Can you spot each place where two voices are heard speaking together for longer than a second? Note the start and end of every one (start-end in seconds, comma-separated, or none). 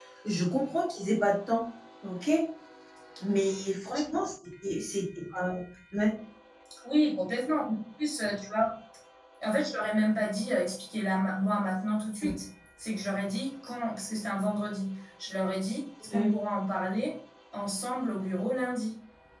none